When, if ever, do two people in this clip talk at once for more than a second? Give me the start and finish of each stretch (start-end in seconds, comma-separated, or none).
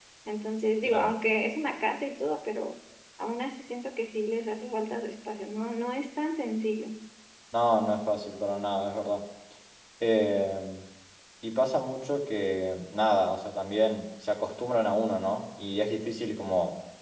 none